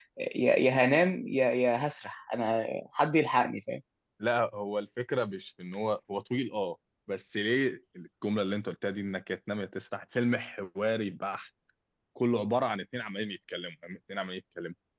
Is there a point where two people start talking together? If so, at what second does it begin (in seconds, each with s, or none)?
none